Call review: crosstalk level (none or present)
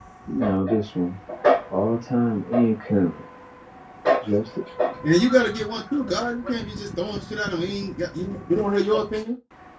none